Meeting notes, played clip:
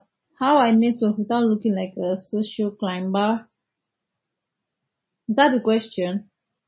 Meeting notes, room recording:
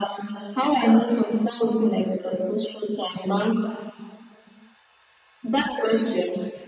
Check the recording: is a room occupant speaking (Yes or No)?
No